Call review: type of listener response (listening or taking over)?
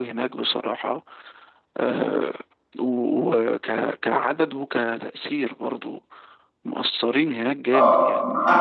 taking over